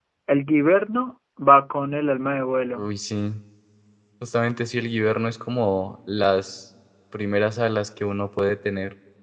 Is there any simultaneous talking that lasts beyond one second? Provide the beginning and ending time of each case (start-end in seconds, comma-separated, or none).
none